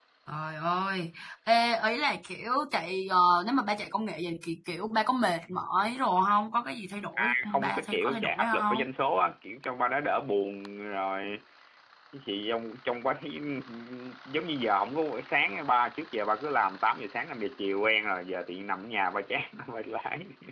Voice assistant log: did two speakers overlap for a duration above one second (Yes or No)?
Yes